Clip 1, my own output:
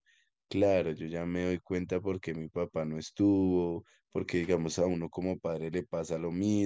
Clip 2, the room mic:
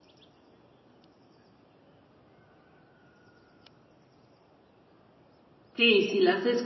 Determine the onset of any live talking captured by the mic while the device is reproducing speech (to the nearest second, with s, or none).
6 s